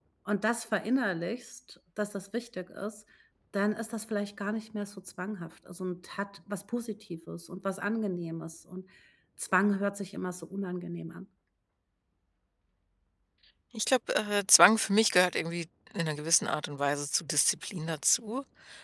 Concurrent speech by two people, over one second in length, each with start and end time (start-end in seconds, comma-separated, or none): none